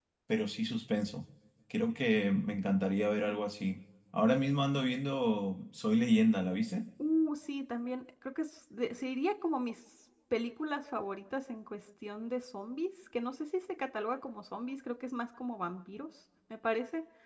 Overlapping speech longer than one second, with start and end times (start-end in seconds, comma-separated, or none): none